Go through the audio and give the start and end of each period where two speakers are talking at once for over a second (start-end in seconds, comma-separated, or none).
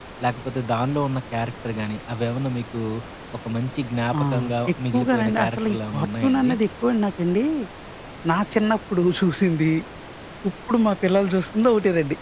4.9-6.5